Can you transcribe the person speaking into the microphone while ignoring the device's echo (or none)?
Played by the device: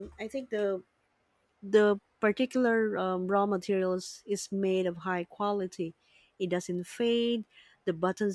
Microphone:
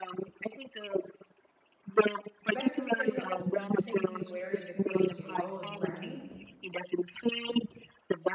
Less sustainable than simply wearing the clothes you own, right?